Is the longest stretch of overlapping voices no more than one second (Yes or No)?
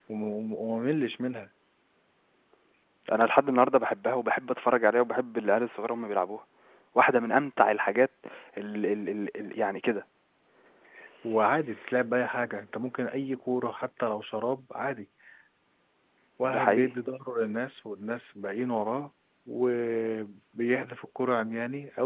Yes